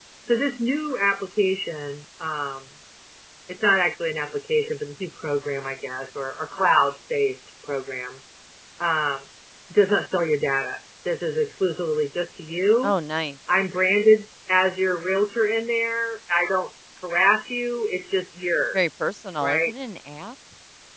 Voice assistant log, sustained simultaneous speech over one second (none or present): none